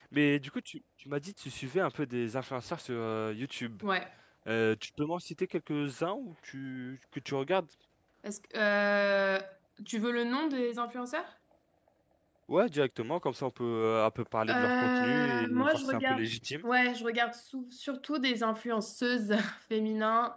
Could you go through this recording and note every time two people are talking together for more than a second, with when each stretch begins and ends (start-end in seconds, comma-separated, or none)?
14.5-16.2